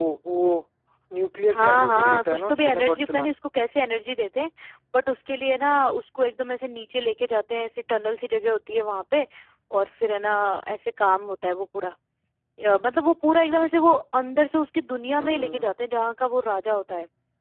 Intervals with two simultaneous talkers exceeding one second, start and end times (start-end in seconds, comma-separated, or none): 1.5-3.3